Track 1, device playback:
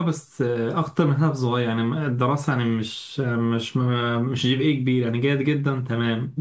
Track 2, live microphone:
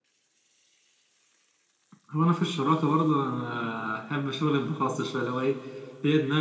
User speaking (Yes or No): Yes